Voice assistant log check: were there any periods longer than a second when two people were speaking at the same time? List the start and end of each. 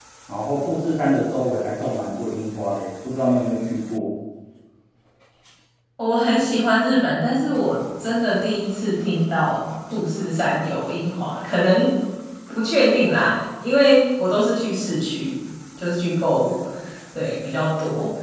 none

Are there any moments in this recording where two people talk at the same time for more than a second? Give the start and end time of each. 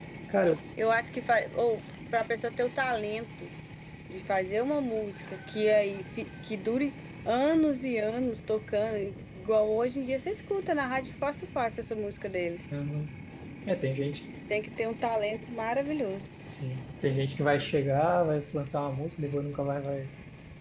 none

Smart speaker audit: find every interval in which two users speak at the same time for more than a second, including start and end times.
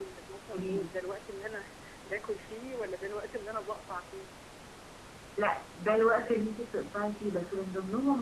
none

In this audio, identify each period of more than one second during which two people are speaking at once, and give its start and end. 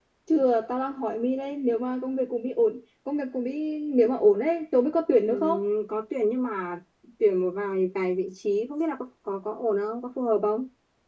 none

